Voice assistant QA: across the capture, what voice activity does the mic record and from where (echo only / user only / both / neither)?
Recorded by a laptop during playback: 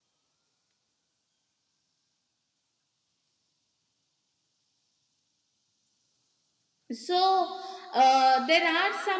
user only